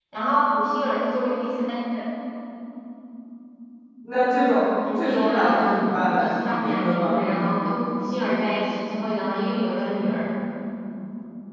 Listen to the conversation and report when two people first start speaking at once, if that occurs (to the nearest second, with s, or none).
5 s